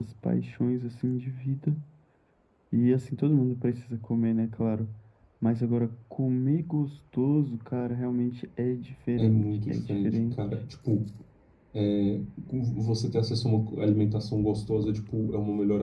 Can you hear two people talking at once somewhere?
Yes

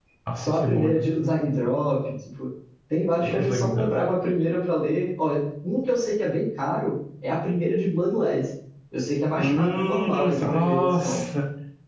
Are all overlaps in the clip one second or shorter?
No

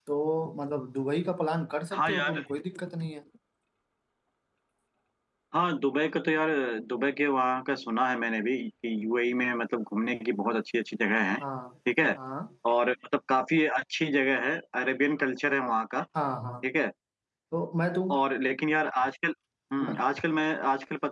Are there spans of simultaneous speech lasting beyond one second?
No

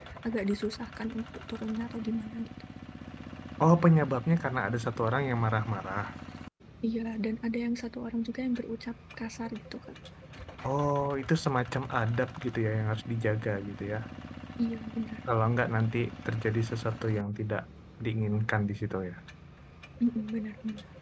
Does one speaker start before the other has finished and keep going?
No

